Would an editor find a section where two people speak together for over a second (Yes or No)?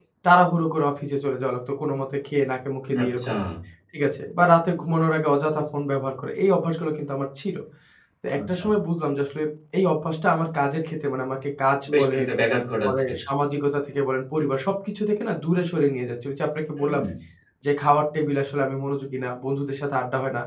No